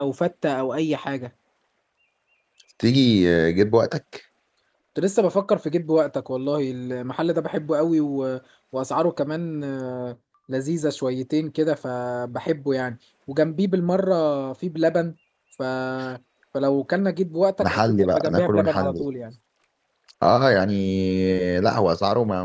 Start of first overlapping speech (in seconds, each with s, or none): 17.6 s